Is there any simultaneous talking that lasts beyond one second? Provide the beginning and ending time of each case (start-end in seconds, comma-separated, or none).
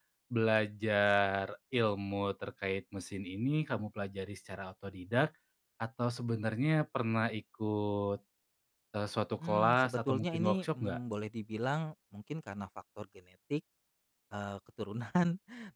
9.4-11.0